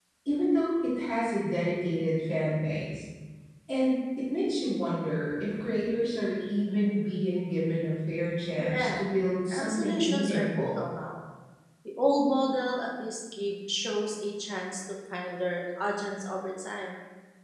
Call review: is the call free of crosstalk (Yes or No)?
No